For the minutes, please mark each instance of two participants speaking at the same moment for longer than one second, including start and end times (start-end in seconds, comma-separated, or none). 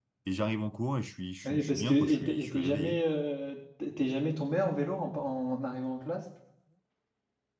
1.4-3.0